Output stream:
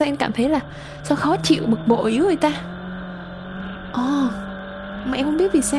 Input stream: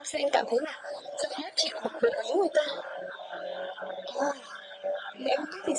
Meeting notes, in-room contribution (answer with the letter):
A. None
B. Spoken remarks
A